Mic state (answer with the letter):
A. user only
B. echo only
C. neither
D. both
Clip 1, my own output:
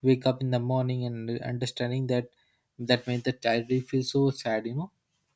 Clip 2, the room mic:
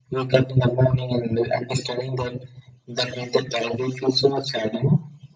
B